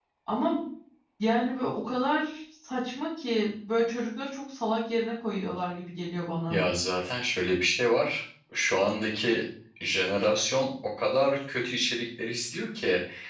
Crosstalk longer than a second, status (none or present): none